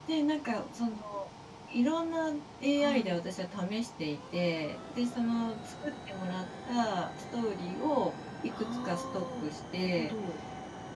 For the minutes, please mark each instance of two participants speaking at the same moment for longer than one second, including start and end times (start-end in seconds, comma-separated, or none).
8.6-10.1